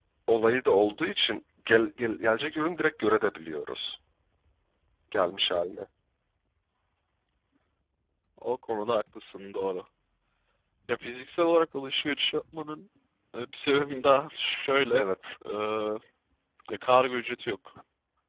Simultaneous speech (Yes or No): No